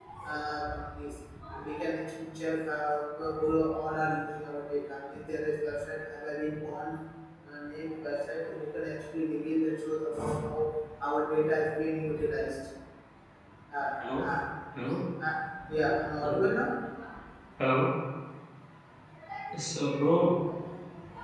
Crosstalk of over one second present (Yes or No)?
No